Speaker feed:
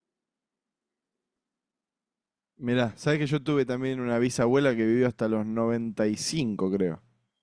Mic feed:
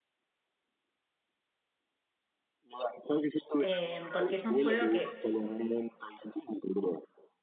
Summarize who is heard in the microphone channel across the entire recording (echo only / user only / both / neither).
both